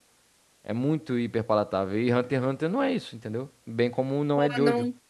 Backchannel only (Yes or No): No